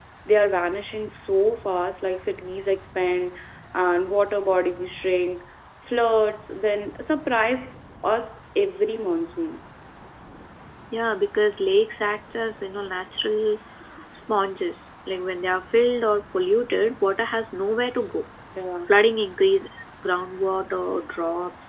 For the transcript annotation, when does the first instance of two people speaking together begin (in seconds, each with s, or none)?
none